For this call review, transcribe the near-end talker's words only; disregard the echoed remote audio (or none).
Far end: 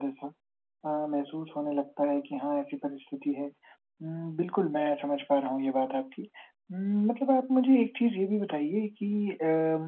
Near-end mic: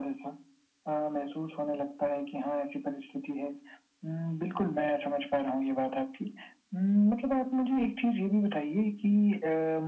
none